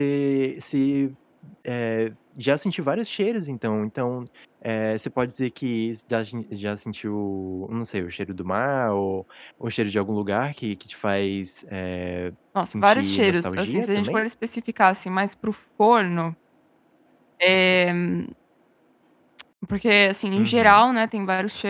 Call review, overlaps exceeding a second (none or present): present